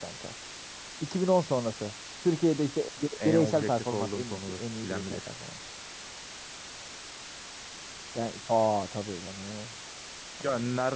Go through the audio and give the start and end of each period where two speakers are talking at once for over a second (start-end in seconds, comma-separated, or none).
3.2-5.3